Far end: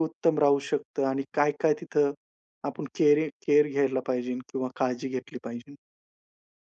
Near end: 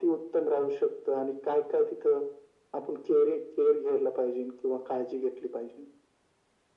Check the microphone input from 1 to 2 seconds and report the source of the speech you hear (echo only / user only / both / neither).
echo only